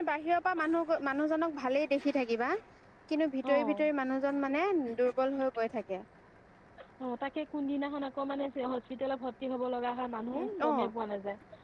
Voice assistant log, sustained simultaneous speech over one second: none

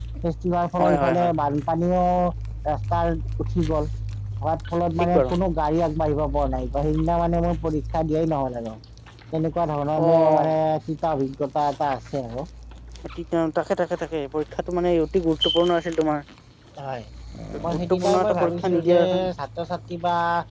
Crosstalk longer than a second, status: present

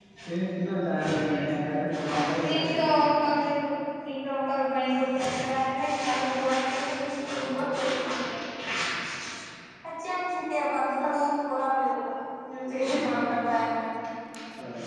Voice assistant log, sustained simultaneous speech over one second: present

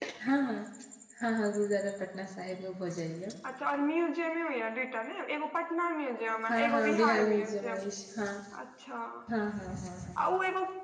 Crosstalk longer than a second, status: present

